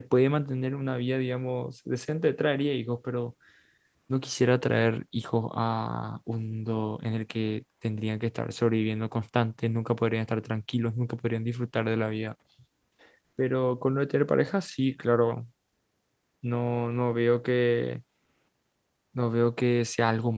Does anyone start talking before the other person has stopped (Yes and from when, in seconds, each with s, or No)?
No